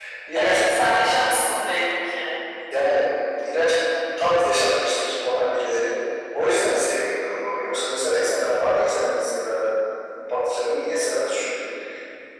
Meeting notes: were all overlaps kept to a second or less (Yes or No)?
Yes